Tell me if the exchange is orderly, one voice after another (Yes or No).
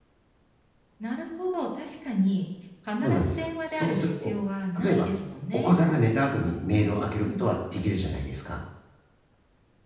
No